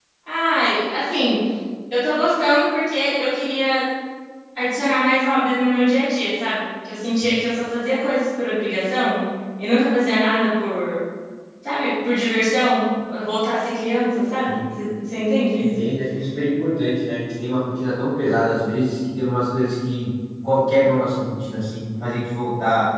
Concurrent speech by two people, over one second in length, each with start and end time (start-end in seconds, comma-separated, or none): none